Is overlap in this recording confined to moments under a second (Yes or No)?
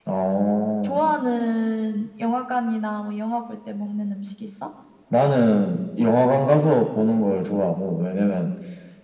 Yes